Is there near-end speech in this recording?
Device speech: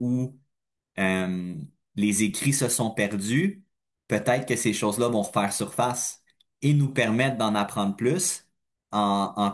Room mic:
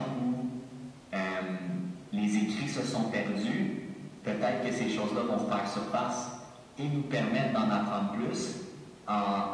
No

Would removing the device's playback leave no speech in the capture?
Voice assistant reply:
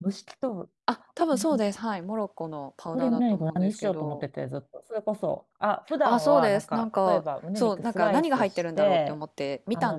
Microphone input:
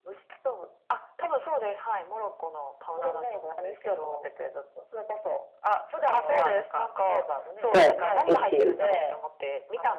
No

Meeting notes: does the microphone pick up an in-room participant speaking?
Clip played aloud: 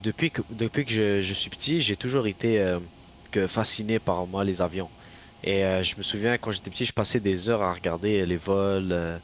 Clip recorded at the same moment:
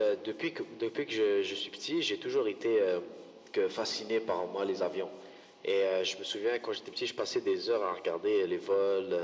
No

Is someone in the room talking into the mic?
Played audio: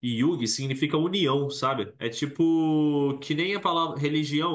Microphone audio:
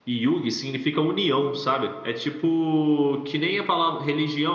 No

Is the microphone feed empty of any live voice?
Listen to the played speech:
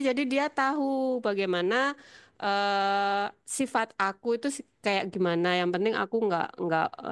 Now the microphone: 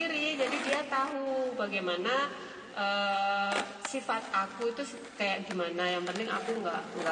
Yes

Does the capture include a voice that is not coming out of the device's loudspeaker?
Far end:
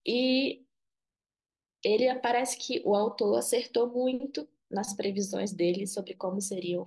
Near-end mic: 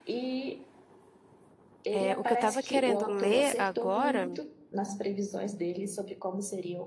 Yes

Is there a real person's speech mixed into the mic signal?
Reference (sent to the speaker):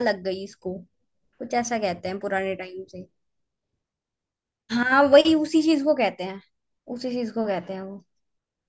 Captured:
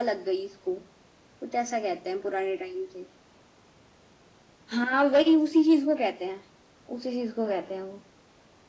No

